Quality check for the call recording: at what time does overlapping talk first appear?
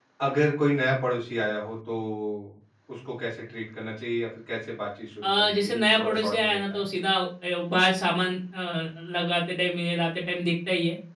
5.2 s

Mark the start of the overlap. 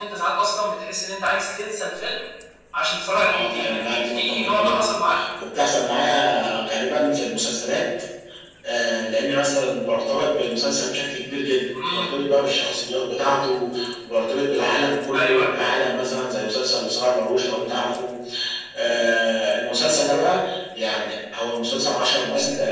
3.2 s

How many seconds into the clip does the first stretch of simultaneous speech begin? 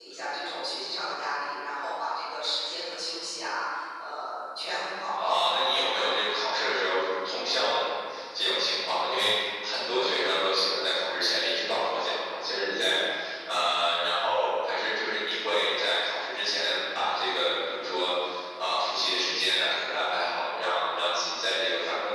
5.1 s

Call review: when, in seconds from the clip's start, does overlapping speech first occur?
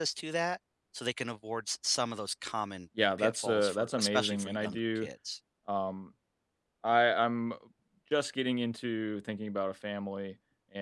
3.2 s

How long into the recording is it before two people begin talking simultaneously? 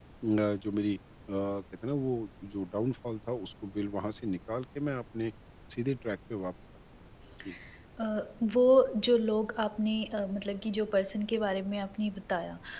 none

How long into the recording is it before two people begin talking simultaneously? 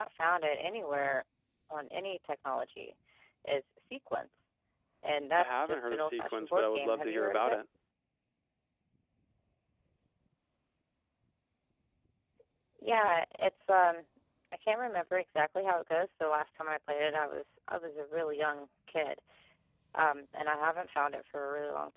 5.4 s

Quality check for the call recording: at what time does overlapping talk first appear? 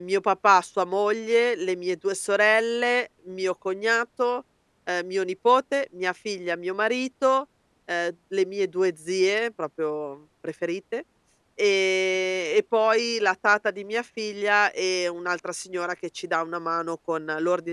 none

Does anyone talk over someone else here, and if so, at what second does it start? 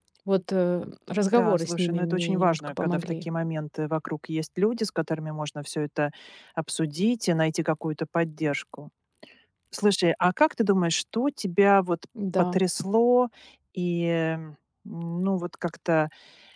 1.2 s

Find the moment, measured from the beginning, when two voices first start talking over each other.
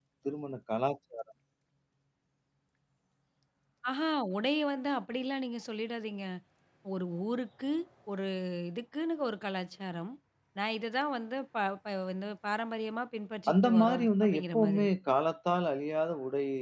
13.5 s

